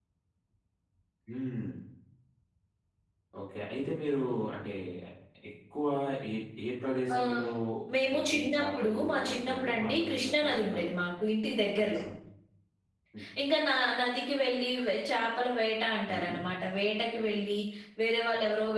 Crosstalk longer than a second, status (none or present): present